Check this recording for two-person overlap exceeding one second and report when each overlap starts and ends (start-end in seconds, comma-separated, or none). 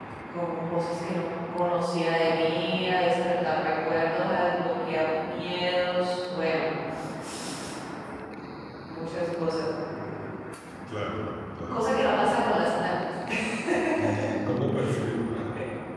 none